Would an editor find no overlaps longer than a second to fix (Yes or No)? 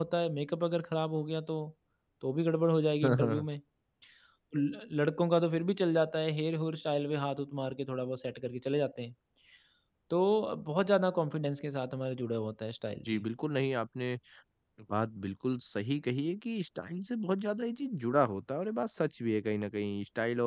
Yes